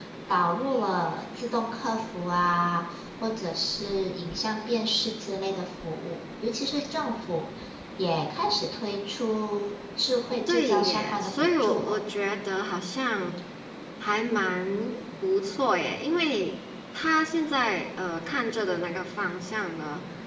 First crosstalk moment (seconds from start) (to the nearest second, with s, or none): 10 s